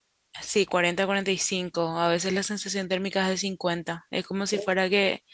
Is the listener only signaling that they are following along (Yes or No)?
Yes